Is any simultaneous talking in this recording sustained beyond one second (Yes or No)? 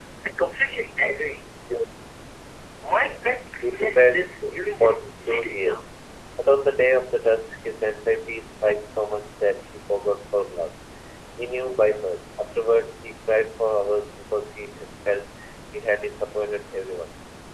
Yes